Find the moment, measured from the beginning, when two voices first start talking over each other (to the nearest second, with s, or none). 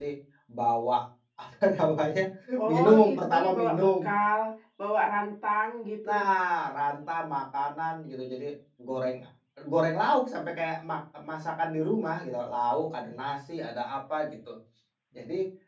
3 s